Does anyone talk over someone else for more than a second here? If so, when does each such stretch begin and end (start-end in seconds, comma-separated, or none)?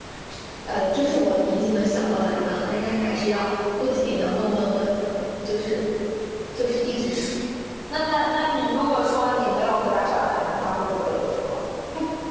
none